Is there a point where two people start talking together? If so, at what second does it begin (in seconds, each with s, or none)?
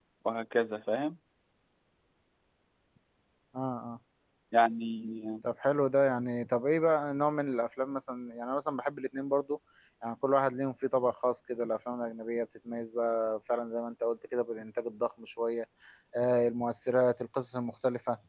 none